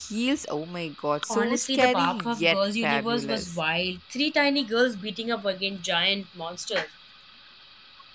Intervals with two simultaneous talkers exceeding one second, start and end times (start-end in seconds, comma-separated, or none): 1.3-3.6